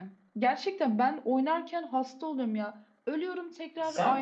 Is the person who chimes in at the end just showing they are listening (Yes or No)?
Yes